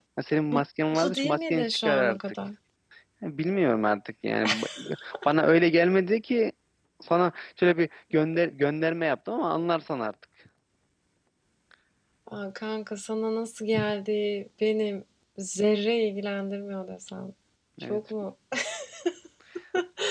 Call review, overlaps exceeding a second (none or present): present